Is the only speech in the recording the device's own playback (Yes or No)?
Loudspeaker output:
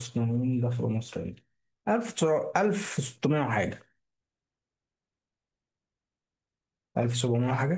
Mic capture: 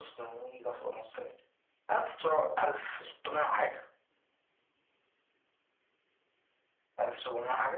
Yes